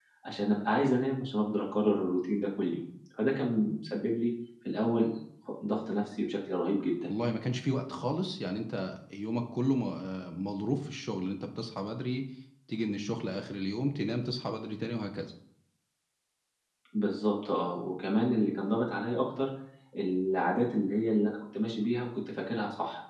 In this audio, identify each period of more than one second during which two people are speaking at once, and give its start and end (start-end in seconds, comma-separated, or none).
none